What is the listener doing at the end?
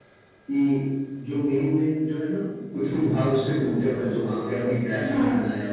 listening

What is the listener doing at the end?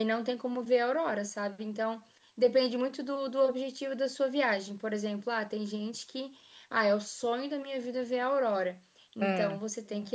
listening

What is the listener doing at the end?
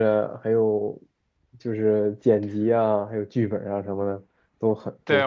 taking over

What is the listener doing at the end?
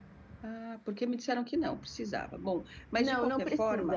taking over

